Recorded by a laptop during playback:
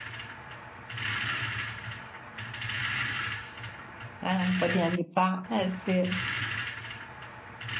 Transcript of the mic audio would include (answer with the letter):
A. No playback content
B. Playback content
A